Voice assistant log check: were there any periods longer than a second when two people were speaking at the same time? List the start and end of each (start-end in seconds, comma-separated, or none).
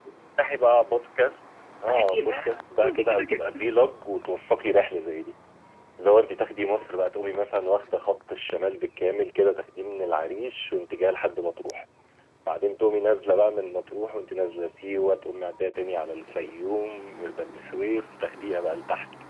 1.9-3.4